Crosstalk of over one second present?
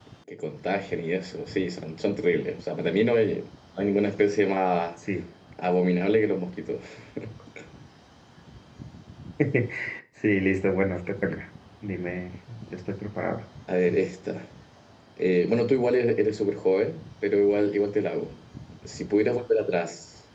No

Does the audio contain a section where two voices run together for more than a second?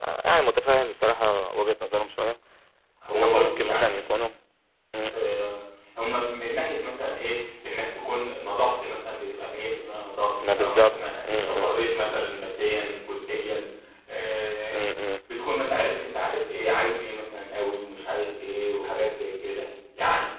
Yes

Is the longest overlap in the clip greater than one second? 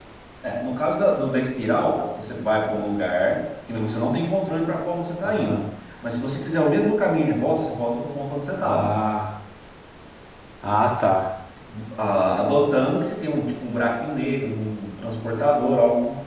No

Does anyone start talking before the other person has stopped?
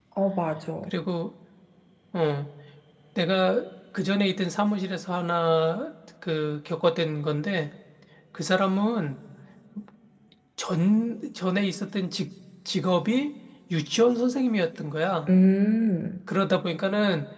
No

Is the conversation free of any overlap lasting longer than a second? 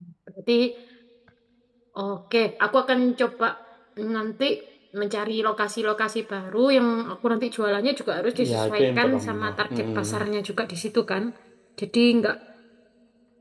No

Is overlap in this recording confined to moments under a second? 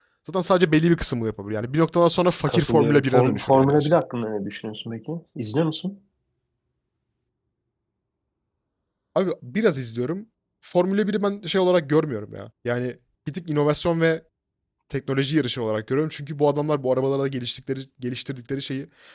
No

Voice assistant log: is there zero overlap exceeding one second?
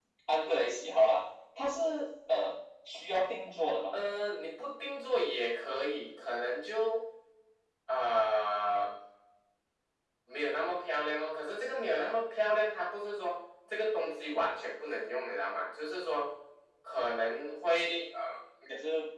Yes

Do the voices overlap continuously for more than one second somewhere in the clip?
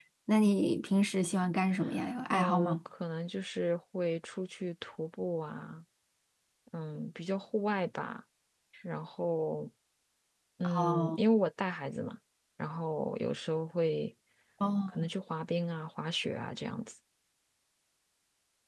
No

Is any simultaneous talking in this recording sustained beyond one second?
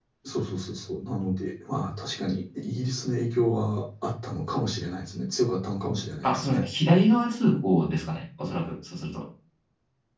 No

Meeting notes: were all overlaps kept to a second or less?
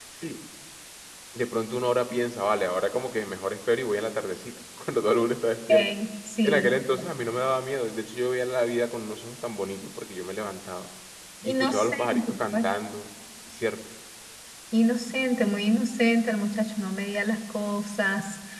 No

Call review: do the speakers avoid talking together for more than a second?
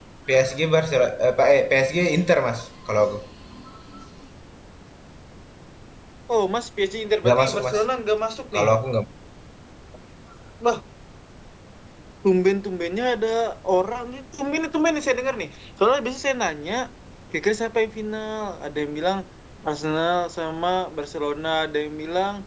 Yes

